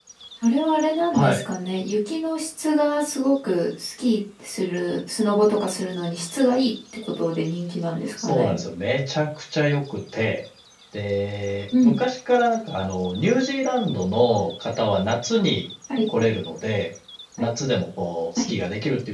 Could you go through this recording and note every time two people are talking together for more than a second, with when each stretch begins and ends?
none

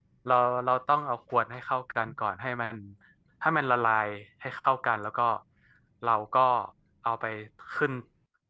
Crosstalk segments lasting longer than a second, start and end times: none

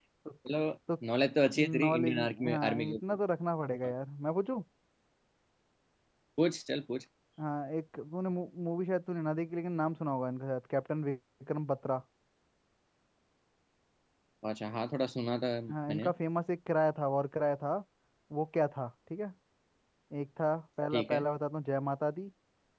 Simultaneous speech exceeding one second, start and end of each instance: 1.6-3.0

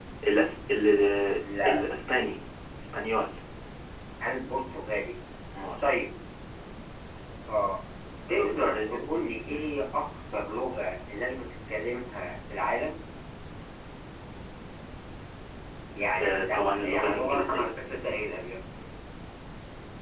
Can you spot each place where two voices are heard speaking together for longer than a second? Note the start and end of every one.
8.3-9.6, 16.2-17.7

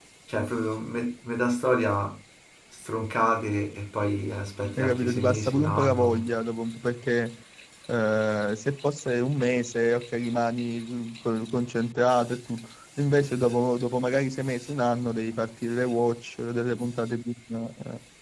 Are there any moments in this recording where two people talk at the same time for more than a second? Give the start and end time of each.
4.8-6.2

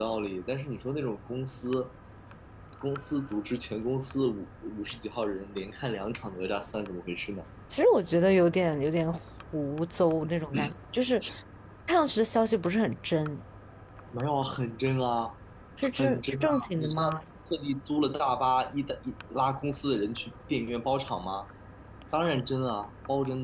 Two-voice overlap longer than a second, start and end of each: 16.0-17.2

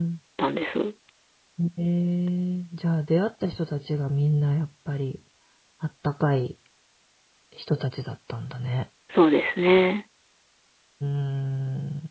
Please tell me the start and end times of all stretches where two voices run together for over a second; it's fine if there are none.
none

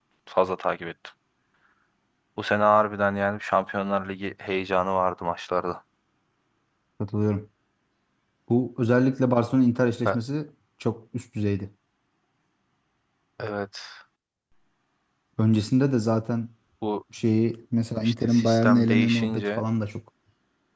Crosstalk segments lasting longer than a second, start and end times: 18.0-19.6

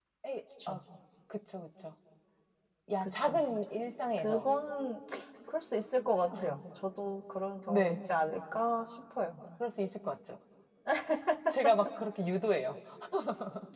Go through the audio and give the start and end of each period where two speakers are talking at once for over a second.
none

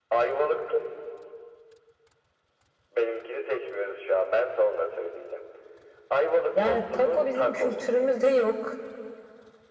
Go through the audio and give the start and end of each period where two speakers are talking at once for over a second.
6.6-7.8

